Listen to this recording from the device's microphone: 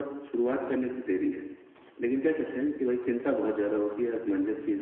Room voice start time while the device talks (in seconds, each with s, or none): none